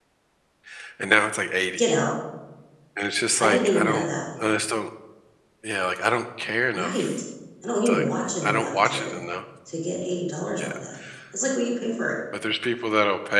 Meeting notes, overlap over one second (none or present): present